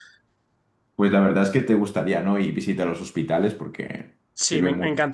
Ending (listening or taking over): taking over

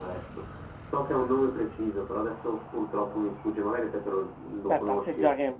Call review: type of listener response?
taking over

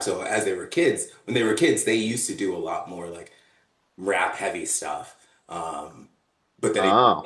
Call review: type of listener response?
listening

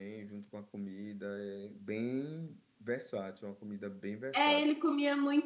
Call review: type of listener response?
taking over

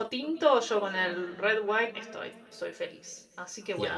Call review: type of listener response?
taking over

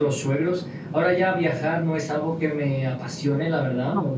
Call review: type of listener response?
listening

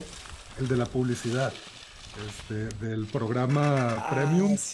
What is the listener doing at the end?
taking over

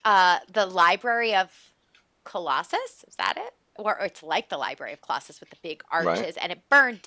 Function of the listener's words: listening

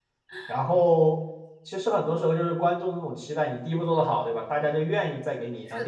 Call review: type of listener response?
listening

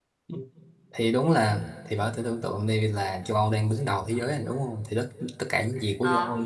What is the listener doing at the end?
listening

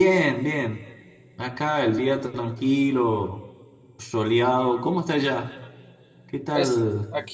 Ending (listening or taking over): taking over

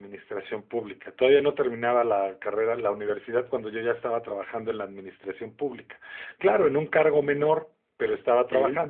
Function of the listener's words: listening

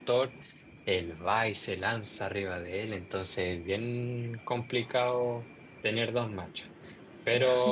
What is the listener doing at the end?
listening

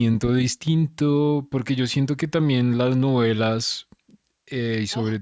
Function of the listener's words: listening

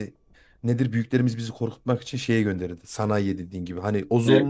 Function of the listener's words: listening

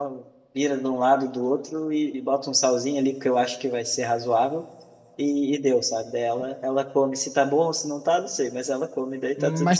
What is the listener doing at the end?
taking over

